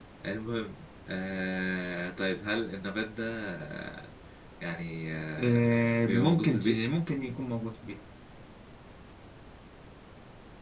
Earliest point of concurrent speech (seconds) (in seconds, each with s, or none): 5.4 s